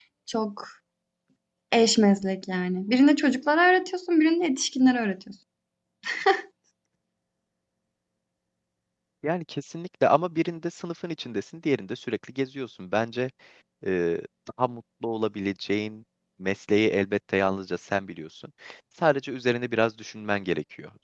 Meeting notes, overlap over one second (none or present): none